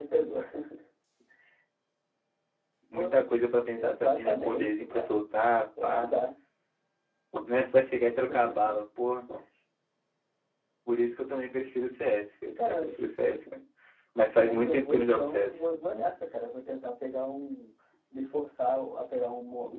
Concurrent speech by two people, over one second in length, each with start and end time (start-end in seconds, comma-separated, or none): 3.8-5.1, 14.3-15.6